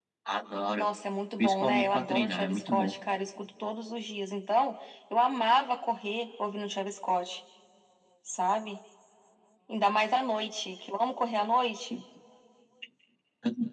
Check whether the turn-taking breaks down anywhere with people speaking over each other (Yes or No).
Yes